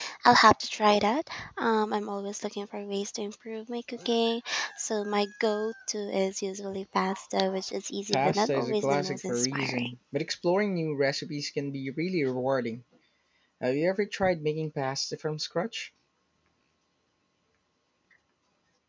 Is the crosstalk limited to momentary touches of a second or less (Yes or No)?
No